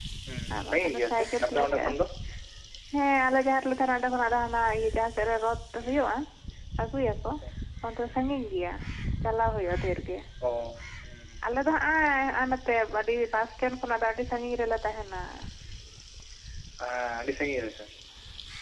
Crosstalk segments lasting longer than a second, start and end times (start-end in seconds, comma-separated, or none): 0.6-1.9